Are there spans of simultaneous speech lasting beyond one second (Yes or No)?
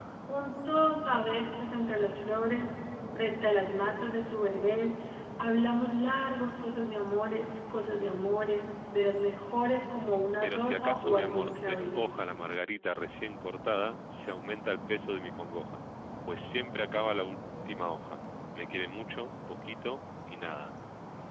Yes